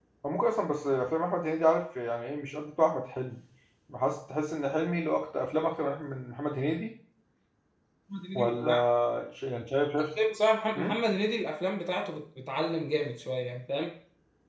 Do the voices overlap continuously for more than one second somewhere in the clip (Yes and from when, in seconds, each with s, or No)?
No